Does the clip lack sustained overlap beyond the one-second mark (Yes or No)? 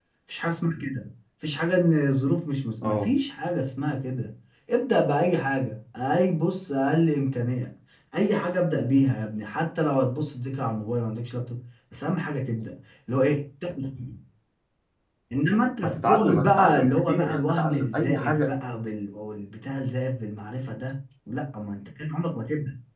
No